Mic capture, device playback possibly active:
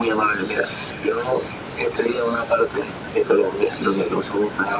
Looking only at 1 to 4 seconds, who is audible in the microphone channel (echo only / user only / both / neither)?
echo only